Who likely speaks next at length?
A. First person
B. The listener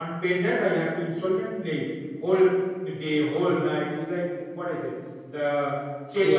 A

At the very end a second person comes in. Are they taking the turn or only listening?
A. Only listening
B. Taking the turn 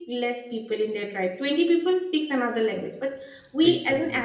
A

